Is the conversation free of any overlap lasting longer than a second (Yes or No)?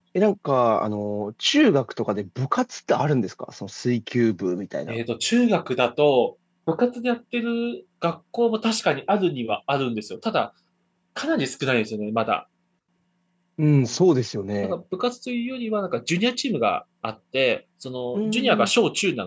Yes